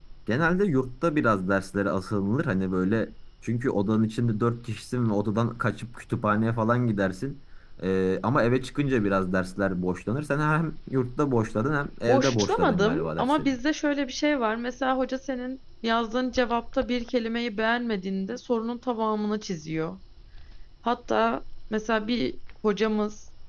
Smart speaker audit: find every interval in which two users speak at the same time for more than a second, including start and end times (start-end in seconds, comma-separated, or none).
12.1-13.5